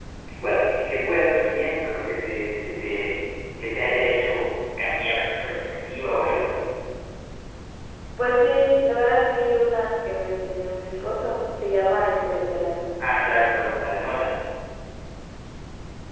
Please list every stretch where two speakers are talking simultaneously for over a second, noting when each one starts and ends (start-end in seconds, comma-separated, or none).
none